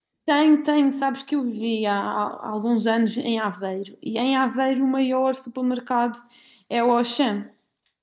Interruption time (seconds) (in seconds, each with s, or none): none